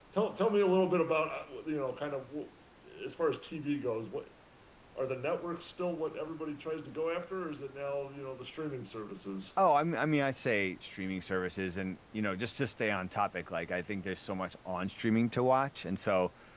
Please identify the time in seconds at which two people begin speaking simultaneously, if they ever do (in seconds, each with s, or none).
none